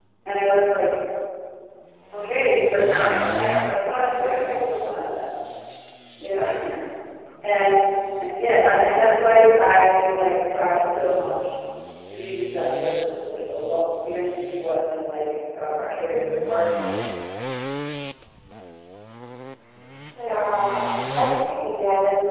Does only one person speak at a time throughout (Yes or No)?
Yes